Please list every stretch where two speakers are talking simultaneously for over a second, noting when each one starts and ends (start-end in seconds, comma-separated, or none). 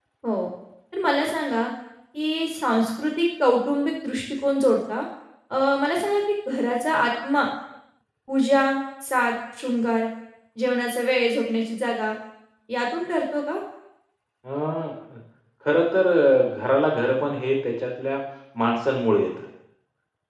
none